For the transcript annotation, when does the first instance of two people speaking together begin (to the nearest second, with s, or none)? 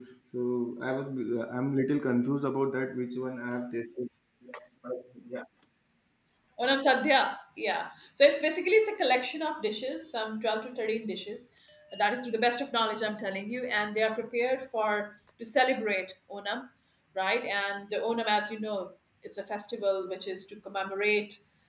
none